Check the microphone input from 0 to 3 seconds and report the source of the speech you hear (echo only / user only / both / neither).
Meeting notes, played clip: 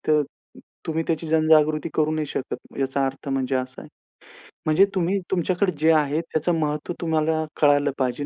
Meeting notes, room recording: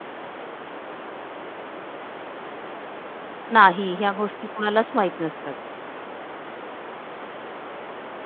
neither